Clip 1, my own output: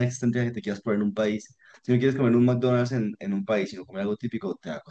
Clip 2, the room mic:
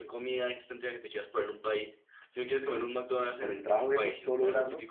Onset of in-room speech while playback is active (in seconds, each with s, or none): 3.4 s